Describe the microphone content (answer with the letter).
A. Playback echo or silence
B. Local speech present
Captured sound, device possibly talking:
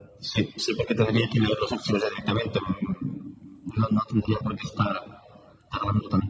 A